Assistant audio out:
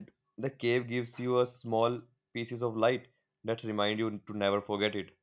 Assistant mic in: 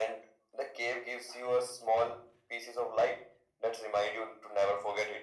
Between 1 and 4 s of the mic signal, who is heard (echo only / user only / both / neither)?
echo only